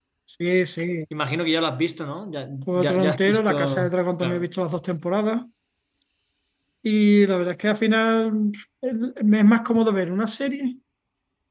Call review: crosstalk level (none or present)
present